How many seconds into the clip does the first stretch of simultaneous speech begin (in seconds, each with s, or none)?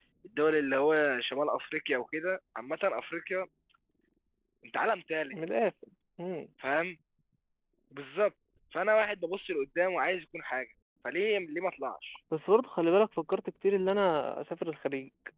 none